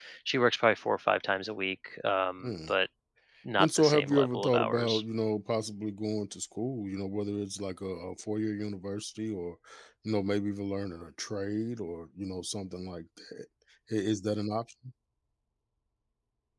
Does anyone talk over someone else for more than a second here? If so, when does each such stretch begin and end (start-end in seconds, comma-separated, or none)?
3.6-5.0